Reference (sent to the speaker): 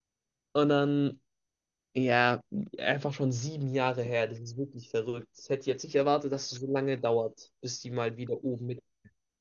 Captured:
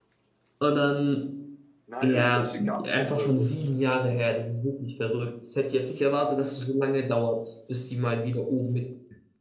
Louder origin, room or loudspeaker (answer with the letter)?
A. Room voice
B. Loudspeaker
B